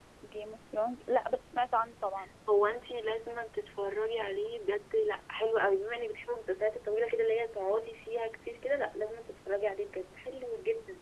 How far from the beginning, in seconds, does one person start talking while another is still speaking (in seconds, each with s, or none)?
none